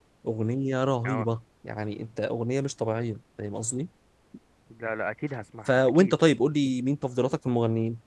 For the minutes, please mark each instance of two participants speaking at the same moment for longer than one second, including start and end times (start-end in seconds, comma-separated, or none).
none